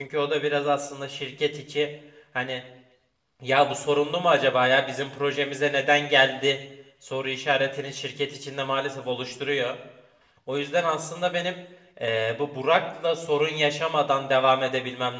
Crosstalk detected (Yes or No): No